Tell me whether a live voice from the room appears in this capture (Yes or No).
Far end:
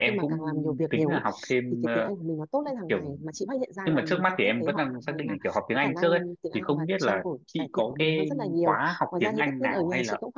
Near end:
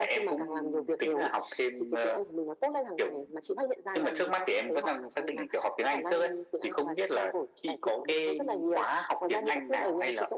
No